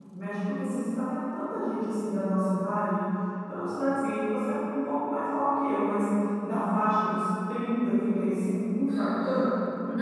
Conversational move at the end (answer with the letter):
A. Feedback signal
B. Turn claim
B